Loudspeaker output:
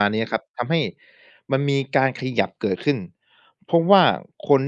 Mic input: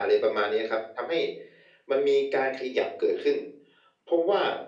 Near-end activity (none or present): none